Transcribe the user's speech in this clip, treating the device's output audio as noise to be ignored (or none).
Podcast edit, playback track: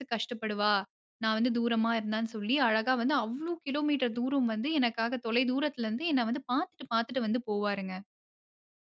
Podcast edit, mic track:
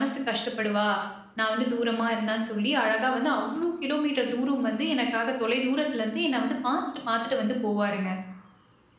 none